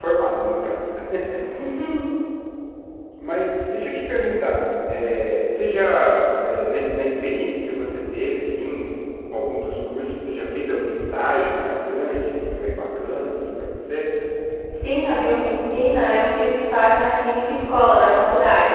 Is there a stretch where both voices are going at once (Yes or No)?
No